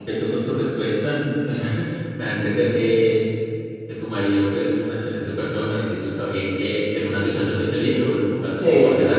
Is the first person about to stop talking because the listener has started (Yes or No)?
Yes